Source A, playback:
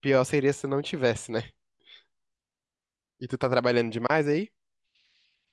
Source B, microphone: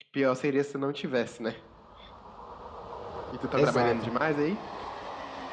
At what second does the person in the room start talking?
4 s

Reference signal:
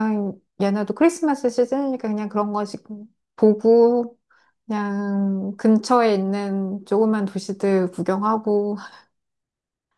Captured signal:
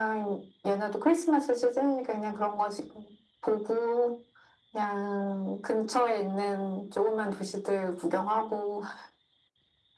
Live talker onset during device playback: none

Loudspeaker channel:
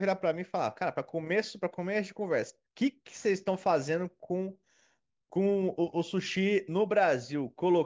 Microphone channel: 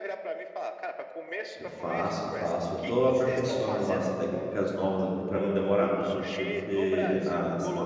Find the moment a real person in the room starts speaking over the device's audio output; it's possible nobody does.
2 s

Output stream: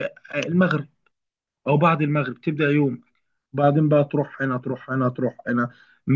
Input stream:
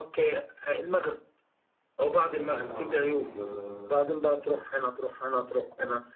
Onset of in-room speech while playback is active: 2 s

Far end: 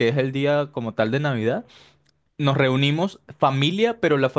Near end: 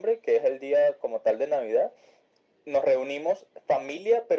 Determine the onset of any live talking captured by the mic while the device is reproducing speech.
none

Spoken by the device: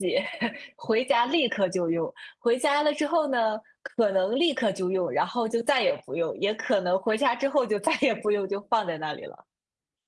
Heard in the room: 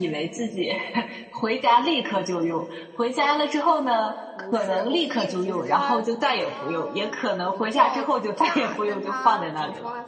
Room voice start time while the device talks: 4 s

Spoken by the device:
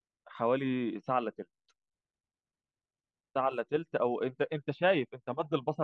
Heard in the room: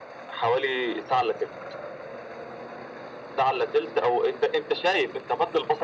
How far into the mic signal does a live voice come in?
none

